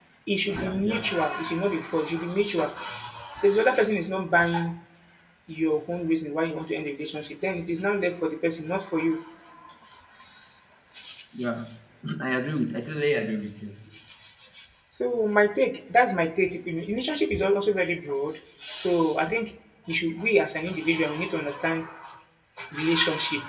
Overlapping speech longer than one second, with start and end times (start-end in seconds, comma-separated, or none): none